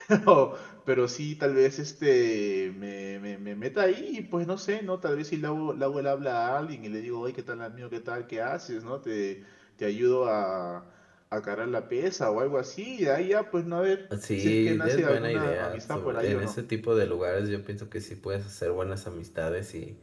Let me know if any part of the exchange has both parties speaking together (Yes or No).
Yes